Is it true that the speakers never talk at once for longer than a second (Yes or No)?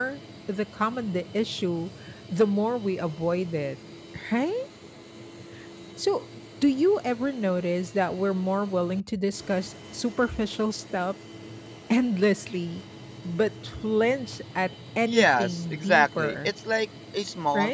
No